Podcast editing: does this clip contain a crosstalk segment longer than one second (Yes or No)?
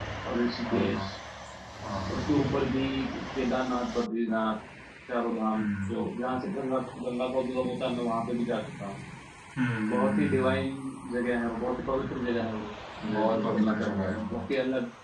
Yes